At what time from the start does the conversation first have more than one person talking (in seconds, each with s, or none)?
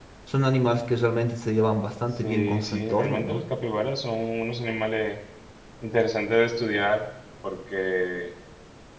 2.2 s